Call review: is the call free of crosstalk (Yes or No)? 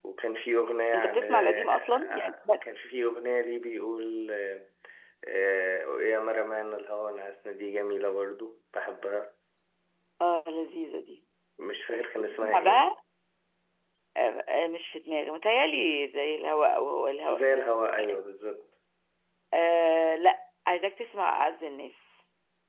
No